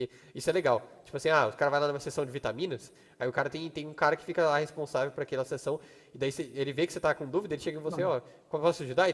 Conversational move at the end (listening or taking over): listening